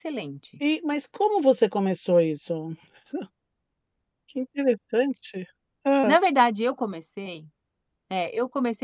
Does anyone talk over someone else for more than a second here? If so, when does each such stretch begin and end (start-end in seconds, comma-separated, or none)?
none